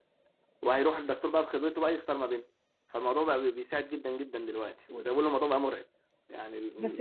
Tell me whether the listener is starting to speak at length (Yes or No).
Yes